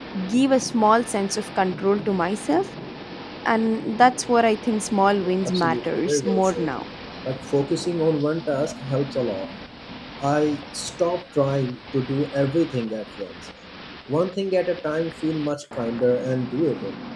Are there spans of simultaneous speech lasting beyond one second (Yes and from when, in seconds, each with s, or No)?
Yes, from 5.2 s